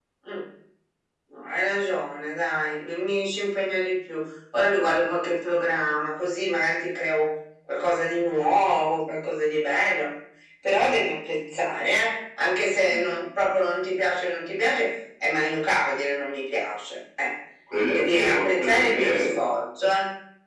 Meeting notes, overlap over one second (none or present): present